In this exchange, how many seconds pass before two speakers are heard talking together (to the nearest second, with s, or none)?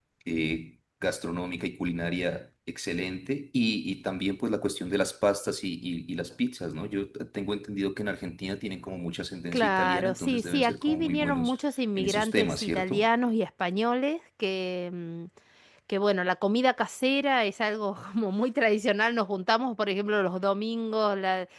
10 s